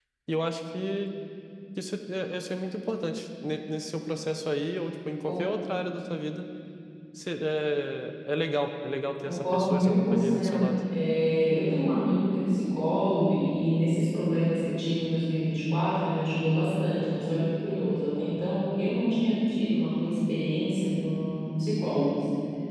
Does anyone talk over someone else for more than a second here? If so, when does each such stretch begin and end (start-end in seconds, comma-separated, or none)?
9.2-10.8